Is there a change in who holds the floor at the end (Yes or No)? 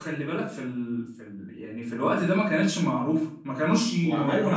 Yes